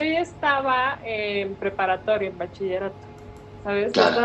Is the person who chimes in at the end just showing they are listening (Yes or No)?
Yes